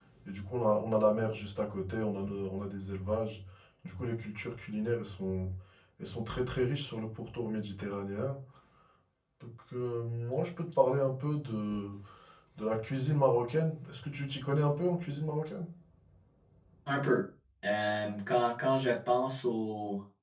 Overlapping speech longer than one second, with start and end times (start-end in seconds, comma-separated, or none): none